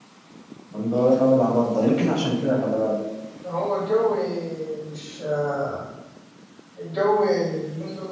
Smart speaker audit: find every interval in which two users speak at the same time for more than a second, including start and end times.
none

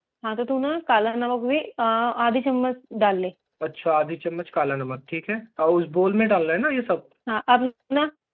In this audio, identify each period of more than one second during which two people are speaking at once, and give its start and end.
none

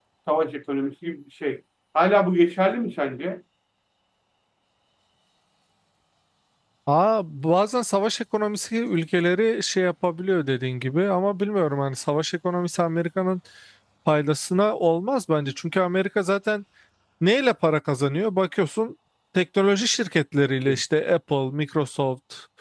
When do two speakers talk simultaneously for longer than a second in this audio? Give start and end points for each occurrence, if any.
none

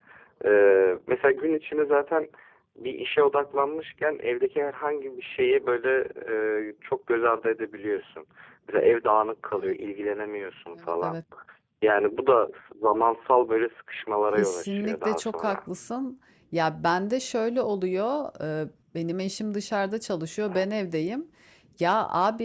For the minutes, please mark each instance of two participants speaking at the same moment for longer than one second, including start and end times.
14.3-15.6

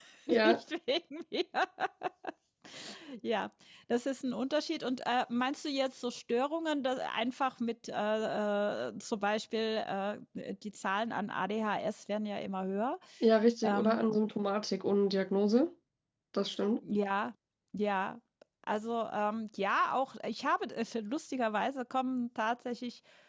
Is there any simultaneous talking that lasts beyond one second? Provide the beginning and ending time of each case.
none

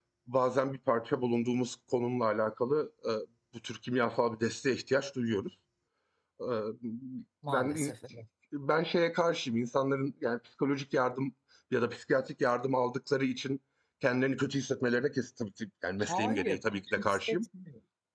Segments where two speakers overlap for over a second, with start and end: 16.0-17.4

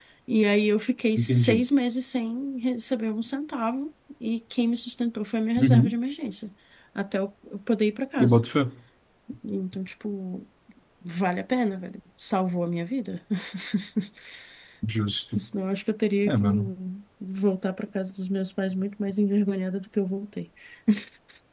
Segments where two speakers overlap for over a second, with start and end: none

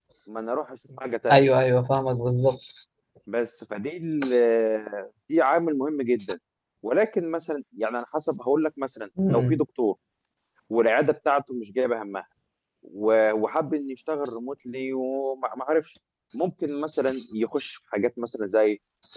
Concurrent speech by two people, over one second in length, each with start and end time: none

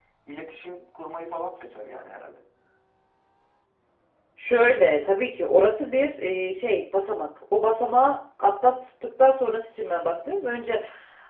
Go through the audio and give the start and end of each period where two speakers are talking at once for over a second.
none

